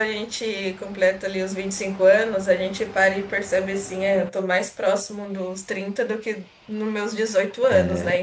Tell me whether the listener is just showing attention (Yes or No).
No